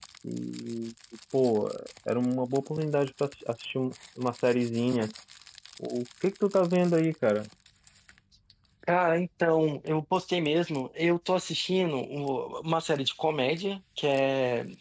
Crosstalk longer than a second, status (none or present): none